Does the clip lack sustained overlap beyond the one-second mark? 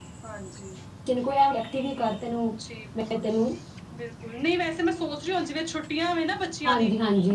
Yes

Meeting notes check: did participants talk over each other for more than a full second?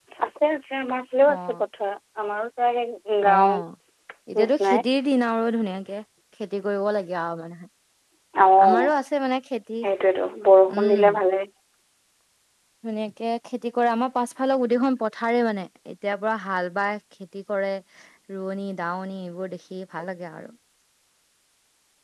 No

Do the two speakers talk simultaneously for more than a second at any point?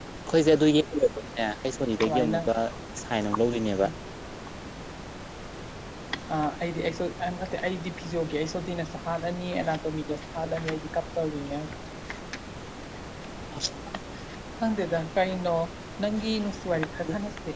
No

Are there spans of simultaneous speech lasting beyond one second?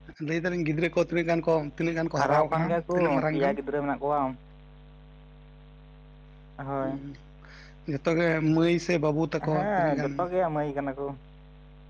Yes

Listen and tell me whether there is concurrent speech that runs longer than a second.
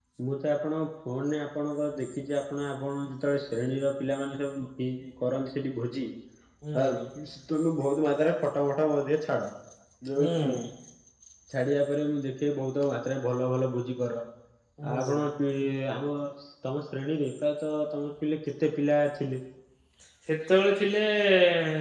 No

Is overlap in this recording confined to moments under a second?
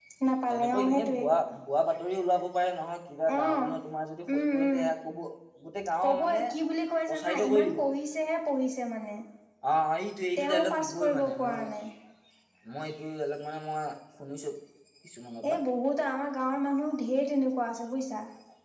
No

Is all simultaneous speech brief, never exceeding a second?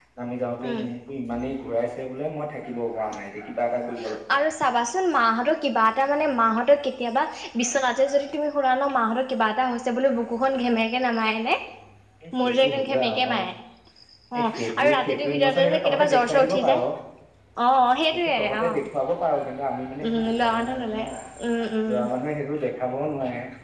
No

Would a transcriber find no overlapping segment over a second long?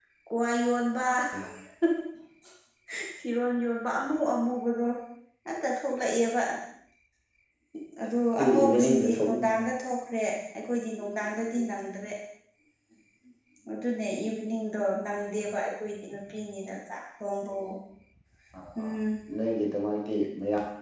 No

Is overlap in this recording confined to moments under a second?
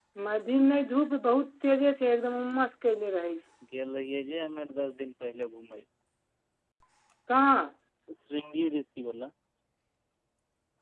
Yes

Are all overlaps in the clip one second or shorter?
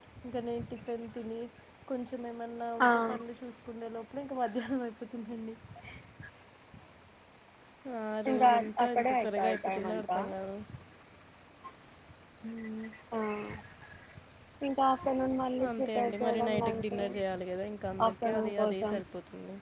No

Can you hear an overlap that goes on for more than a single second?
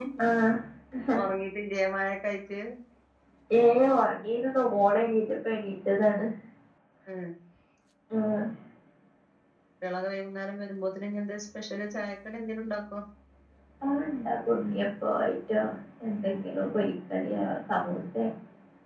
No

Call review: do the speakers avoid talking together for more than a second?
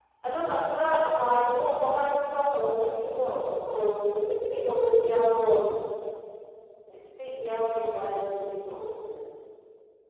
Yes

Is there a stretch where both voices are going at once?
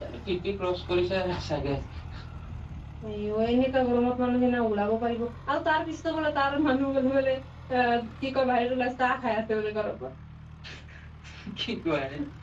No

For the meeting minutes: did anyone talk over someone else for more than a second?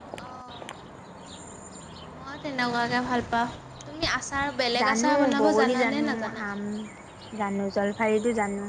Yes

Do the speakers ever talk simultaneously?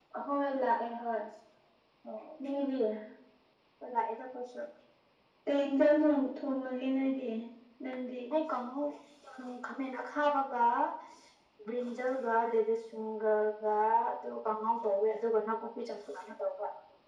No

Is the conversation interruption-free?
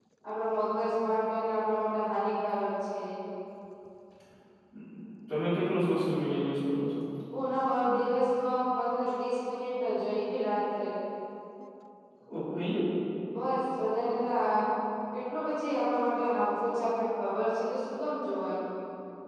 Yes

